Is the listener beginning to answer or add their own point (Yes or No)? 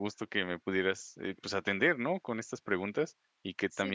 No